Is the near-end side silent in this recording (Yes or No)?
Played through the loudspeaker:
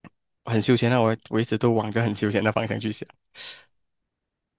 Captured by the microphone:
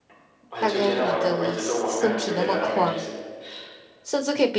No